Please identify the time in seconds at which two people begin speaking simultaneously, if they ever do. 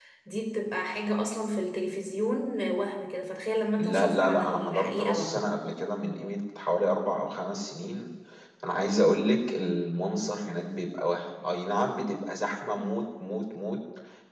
3.8 s

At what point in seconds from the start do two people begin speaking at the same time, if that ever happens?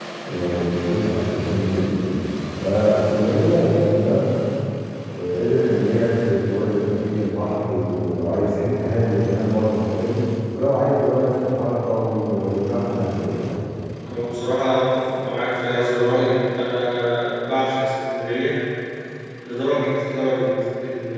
none

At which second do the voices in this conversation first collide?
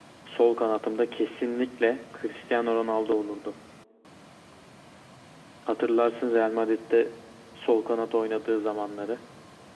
none

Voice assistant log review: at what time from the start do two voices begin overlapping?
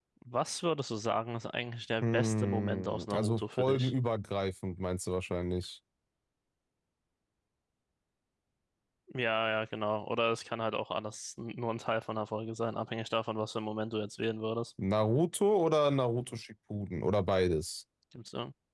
2.0 s

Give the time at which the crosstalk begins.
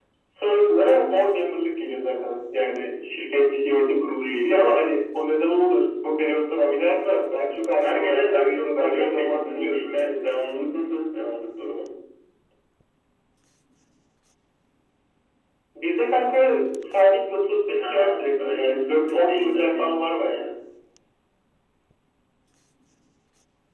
7.8 s

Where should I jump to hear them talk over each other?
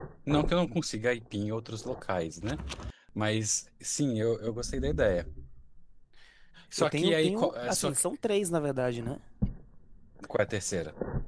6.8 s

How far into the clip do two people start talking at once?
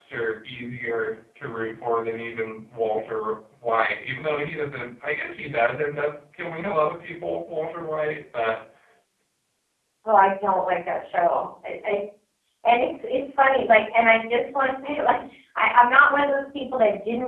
none

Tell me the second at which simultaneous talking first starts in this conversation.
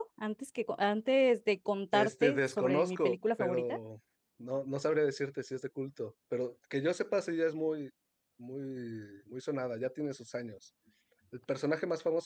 1.9 s

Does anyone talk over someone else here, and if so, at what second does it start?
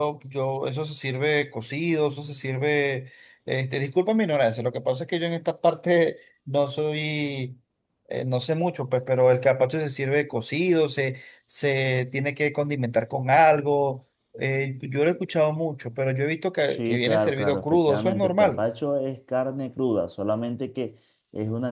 16.7 s

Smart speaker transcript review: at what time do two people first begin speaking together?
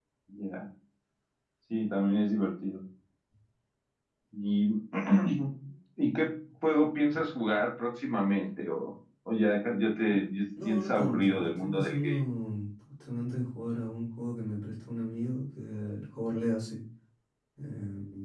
10.7 s

